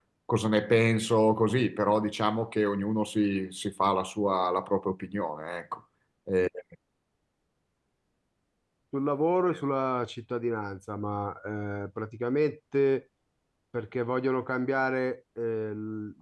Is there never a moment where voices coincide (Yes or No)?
Yes